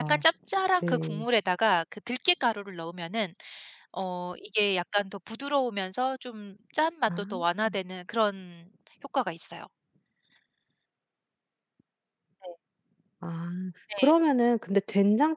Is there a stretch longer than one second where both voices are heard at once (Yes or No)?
No